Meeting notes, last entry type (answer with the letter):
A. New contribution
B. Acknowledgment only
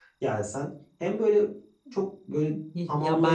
A